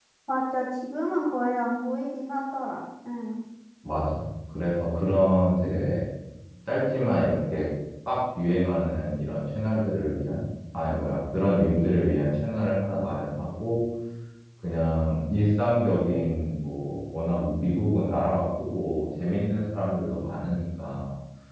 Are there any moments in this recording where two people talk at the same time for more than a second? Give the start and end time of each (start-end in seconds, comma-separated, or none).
none